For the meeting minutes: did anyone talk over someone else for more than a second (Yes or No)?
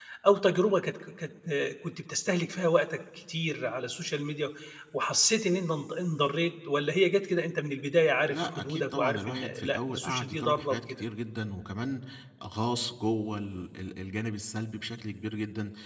Yes